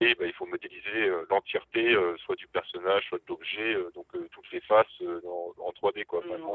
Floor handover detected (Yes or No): Yes